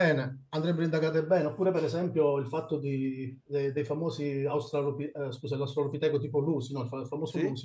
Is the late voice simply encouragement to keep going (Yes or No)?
Yes